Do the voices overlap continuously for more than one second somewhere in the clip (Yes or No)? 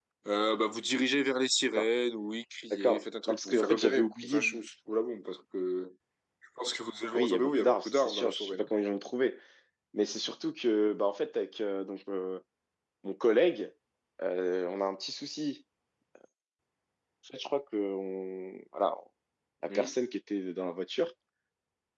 Yes